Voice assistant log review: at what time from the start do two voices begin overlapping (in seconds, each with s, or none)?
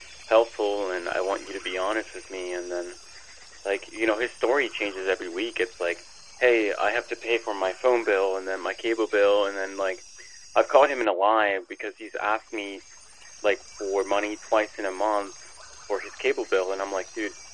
none